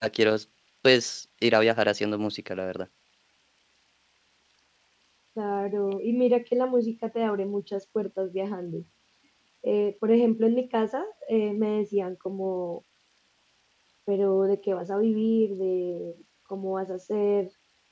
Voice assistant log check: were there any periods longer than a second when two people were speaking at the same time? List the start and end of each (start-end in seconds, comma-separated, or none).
none